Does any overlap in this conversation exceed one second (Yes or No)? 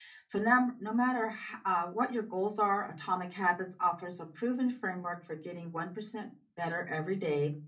No